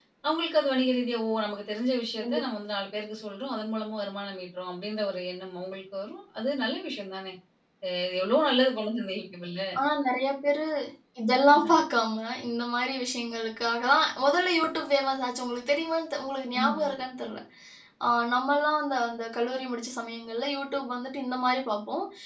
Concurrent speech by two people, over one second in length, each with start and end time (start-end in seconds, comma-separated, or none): none